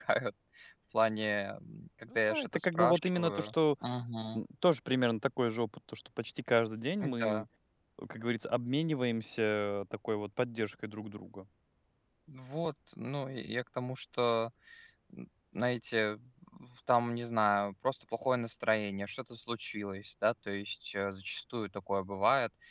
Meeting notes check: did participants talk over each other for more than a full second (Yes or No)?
Yes